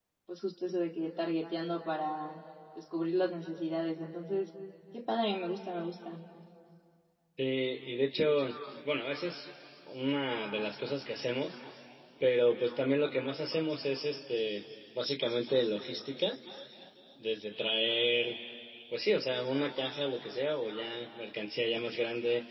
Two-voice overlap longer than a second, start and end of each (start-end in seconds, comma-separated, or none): none